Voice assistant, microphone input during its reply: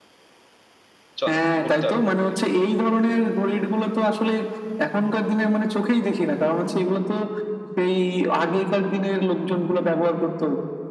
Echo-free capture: No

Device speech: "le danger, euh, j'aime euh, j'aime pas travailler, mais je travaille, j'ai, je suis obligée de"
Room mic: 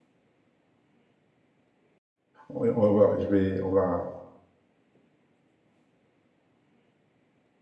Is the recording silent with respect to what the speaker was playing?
Yes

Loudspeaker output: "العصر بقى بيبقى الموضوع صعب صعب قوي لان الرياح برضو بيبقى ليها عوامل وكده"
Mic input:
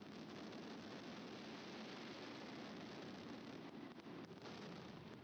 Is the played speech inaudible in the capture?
Yes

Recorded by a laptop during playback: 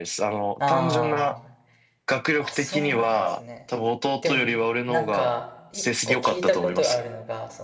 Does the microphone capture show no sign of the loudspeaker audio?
No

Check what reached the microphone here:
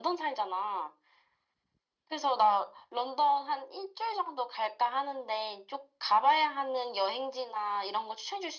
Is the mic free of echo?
No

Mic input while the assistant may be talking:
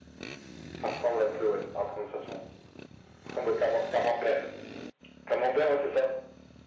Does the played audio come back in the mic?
Yes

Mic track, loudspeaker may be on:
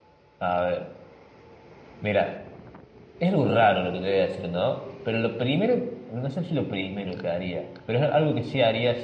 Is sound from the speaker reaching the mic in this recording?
No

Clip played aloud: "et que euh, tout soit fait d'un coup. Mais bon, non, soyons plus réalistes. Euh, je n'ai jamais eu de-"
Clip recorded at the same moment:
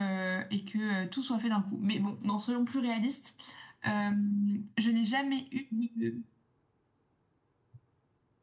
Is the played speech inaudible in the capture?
No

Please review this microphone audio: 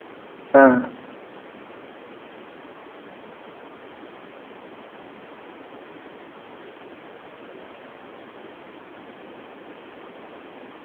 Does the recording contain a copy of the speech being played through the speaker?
No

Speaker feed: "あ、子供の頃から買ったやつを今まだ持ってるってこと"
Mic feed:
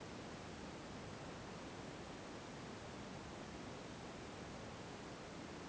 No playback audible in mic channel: Yes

